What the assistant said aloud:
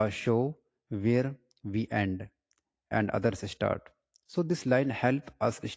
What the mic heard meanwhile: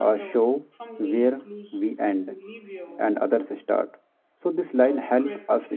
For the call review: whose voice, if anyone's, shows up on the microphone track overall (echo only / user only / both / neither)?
both